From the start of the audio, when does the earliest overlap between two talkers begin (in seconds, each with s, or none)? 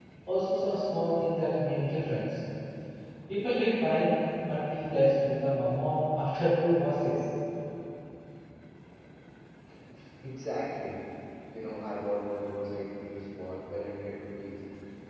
none